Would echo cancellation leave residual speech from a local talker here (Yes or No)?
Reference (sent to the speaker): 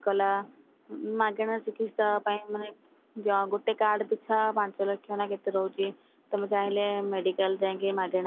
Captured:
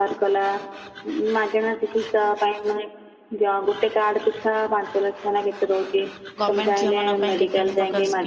Yes